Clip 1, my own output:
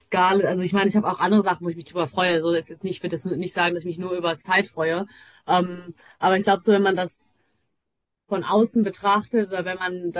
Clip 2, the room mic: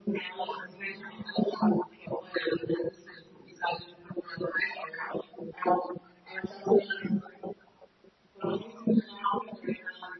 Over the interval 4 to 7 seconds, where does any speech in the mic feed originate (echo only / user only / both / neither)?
echo only